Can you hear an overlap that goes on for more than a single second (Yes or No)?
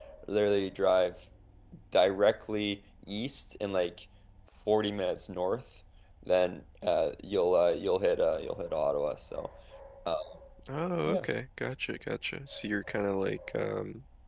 No